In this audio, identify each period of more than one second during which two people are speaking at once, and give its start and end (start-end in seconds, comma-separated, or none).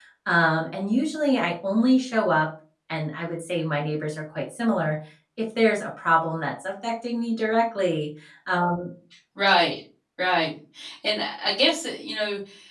none